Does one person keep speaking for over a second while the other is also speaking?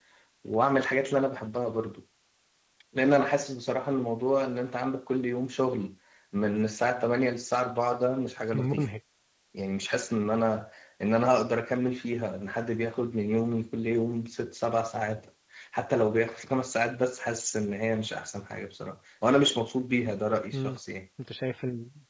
No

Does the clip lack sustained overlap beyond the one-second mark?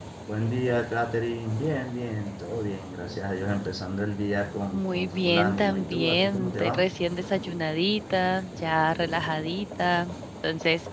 No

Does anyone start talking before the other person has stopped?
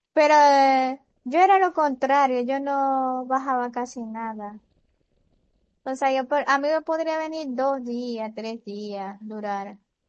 No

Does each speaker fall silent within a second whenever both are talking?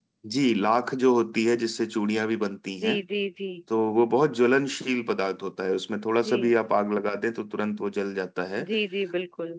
Yes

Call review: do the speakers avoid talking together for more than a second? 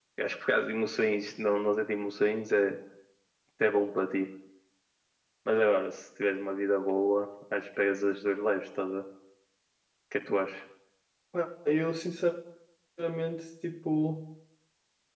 Yes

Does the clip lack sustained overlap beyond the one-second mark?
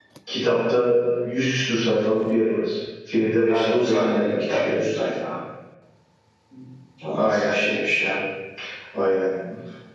No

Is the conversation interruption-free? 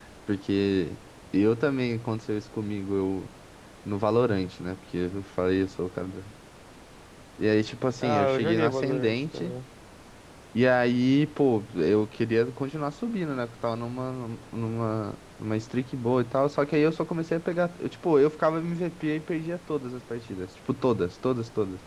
No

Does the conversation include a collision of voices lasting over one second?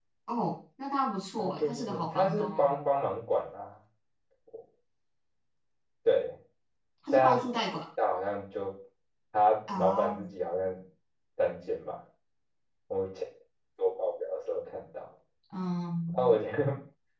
Yes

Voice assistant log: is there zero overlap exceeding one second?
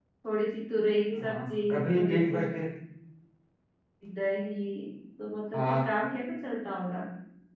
No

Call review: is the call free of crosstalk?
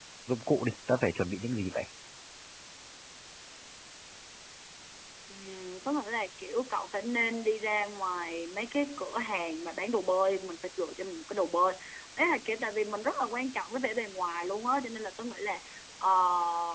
Yes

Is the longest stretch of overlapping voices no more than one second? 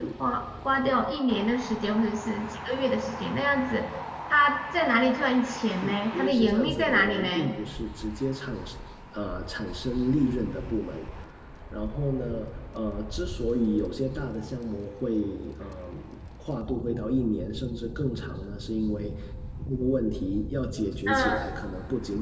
No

